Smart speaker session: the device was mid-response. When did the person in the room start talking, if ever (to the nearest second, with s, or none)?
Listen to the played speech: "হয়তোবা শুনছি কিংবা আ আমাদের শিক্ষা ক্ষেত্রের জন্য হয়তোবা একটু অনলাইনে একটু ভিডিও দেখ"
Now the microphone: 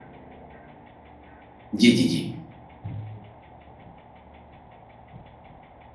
2 s